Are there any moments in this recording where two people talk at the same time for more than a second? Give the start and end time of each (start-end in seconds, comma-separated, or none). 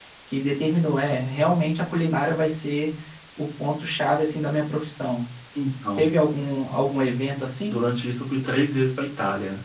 none